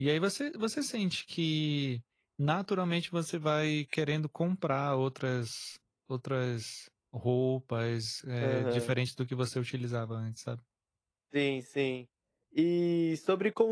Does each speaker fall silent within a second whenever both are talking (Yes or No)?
Yes